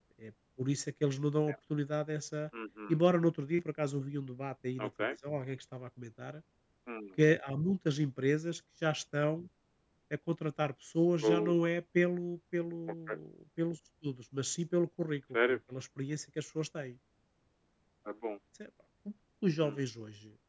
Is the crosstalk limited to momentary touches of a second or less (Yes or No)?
Yes